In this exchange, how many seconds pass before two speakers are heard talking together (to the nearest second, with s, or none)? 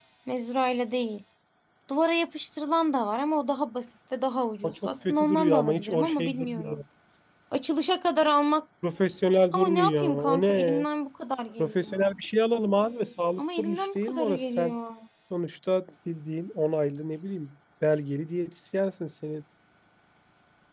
5 s